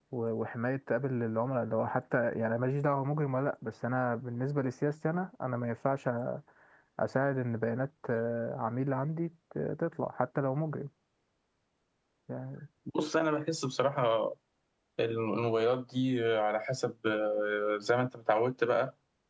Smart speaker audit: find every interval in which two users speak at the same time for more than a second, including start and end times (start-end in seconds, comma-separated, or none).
none